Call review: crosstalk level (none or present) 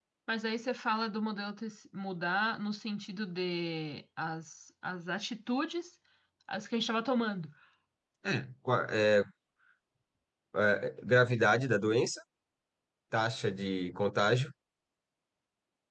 none